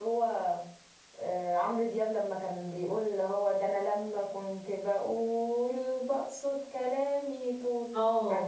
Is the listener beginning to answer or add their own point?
Yes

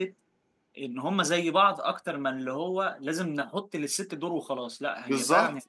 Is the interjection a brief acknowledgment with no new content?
No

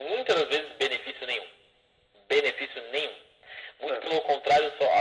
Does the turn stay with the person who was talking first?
Yes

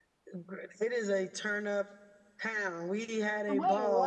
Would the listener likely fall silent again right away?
Yes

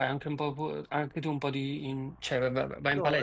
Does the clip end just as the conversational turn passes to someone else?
Yes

